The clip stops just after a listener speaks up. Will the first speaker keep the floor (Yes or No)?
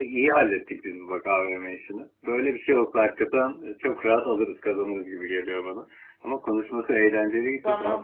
Yes